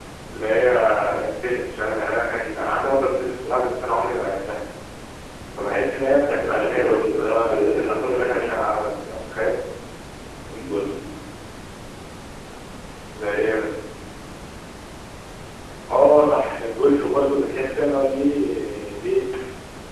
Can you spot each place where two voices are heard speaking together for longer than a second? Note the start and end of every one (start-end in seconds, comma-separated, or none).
6.5-8.5